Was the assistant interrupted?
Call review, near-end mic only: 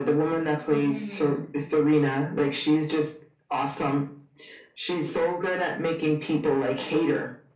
Yes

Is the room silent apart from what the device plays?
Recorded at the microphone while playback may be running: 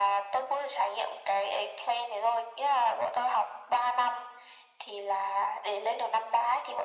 Yes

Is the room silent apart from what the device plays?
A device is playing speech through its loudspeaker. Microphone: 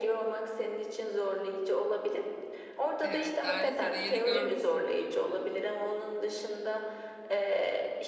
No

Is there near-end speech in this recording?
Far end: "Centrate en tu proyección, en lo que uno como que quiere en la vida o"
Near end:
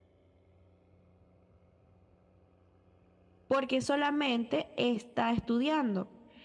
Yes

